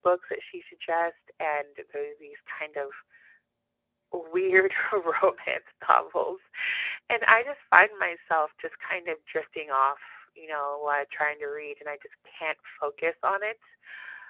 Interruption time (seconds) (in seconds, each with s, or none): none